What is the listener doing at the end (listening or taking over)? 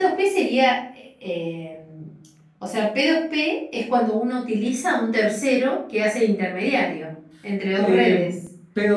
taking over